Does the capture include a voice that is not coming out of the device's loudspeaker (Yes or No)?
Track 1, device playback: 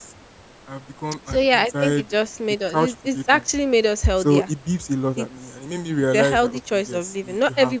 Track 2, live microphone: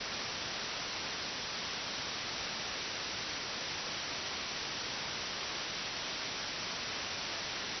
No